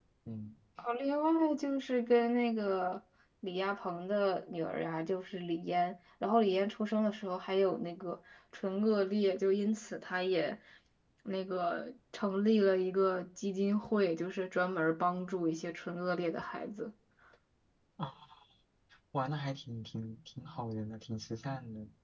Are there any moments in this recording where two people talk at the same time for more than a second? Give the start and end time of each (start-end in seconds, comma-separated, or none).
none